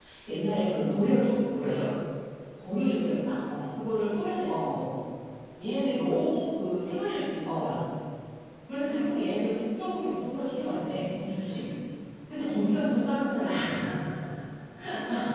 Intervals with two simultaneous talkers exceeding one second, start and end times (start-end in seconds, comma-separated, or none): none